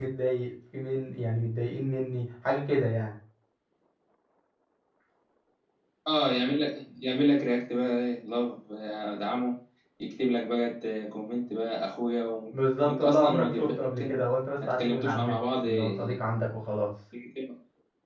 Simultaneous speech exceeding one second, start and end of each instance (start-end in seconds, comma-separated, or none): 12.8-14.2, 14.7-16.1